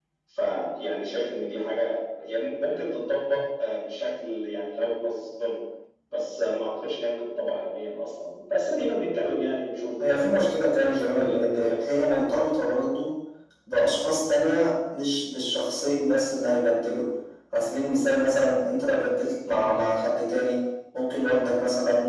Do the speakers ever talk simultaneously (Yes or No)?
Yes